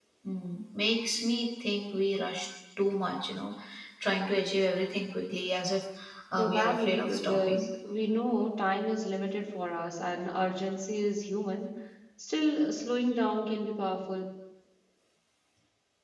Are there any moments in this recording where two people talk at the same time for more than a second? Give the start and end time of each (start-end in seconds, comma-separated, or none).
6.4-7.7